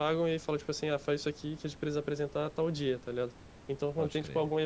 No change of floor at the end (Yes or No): Yes